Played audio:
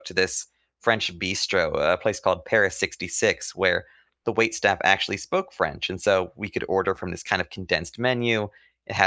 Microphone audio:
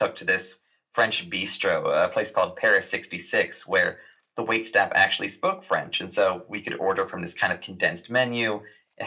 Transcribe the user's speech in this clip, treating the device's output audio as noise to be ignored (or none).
none